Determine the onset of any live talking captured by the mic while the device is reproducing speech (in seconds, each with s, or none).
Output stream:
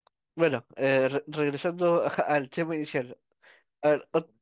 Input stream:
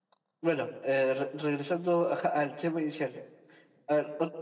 none